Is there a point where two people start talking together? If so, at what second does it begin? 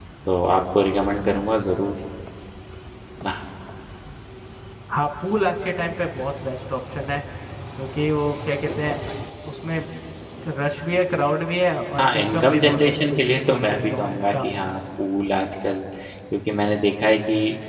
12.0 s

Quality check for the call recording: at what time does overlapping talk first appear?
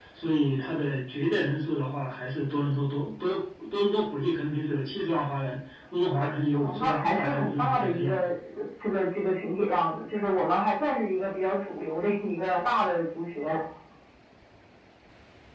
6.5 s

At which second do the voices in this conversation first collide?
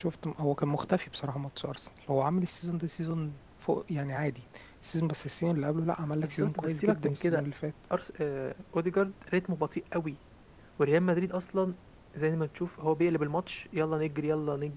6.2 s

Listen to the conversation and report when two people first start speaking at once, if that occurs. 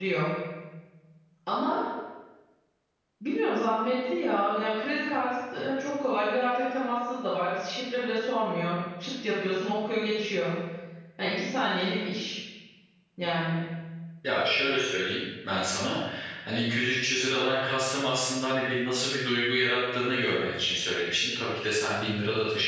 none

